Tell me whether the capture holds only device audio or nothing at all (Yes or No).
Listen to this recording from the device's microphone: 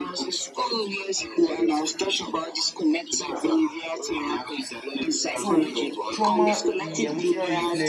No